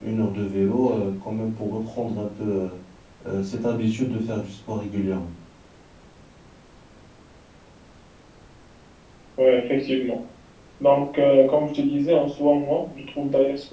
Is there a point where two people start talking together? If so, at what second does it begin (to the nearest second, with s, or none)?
none